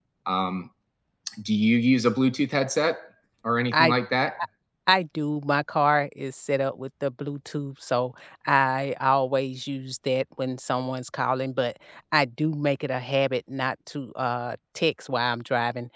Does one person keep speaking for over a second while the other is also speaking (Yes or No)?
No